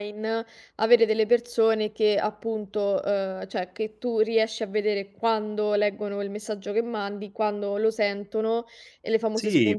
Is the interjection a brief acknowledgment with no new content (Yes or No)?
No